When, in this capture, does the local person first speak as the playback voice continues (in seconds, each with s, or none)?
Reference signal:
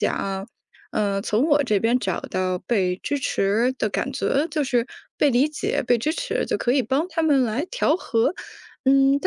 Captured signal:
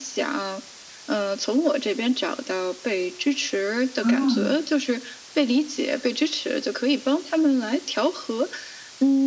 4.0 s